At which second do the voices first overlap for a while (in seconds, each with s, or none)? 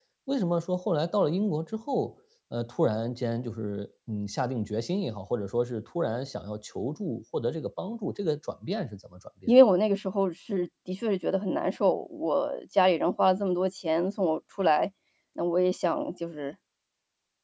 none